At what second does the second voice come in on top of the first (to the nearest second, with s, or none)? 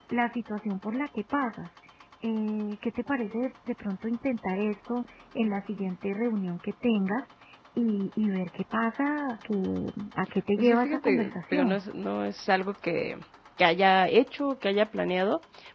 11 s